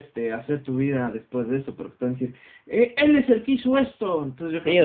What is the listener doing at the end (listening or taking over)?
taking over